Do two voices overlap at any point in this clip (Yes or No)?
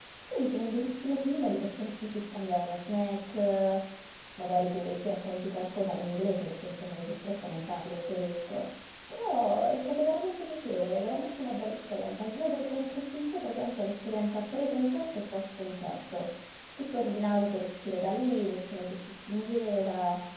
No